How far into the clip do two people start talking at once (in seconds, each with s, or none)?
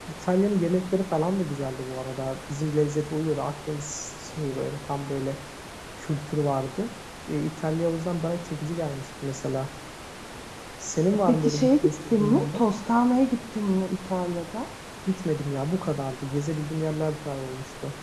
11.3 s